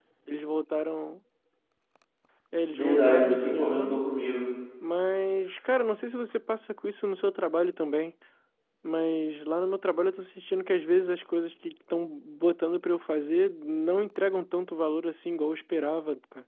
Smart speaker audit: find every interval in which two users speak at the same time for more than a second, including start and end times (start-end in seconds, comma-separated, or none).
2.7-4.0